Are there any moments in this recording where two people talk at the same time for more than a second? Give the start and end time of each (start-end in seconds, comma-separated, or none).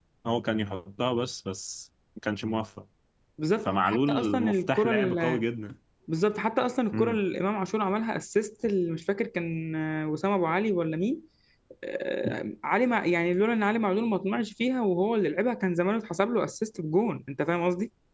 3.6-5.4